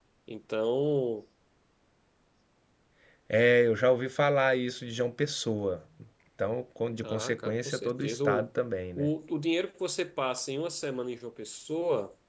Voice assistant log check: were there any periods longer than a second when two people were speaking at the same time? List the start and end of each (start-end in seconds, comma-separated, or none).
7.0-8.5